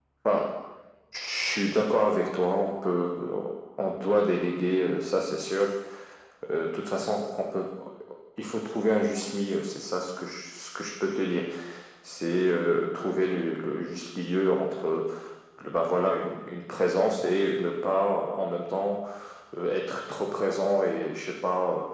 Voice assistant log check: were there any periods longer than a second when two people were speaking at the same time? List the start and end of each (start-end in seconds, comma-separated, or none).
none